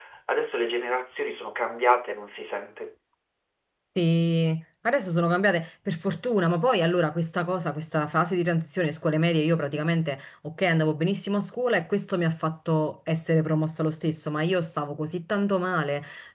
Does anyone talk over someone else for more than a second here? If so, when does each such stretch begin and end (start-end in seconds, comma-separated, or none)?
none